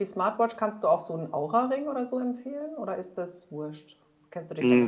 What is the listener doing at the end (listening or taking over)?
taking over